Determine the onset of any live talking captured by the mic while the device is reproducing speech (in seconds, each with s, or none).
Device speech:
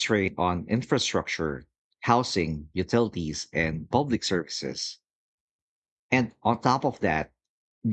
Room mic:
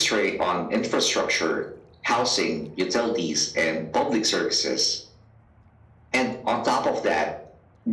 none